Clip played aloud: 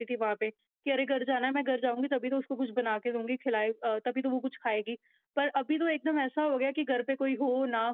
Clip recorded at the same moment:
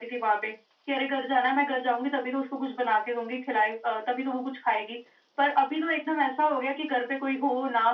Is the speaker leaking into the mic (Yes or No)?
Yes